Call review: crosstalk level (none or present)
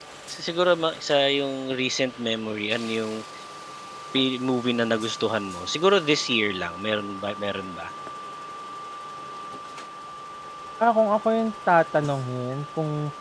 none